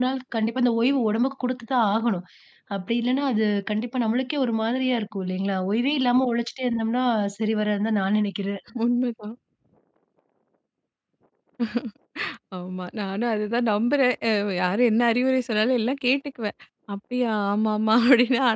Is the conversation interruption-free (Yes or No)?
Yes